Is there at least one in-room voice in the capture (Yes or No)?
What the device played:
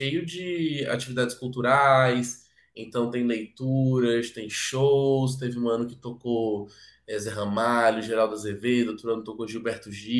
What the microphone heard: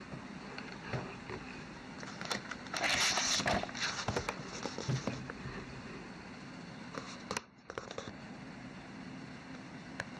No